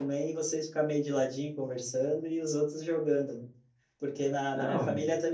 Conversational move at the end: listening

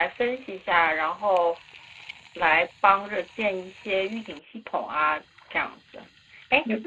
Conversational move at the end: listening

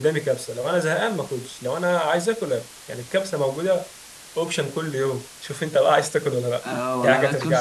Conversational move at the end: taking over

